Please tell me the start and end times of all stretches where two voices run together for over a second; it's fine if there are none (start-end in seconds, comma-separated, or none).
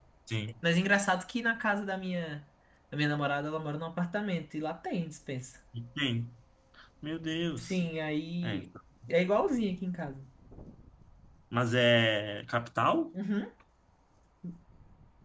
none